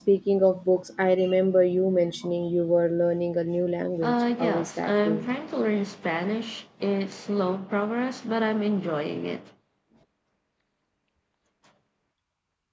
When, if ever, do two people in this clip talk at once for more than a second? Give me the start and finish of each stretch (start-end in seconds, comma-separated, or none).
4.0-5.4